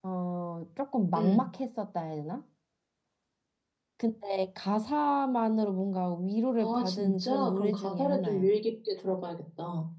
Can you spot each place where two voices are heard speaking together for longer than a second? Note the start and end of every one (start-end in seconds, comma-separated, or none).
6.6-8.5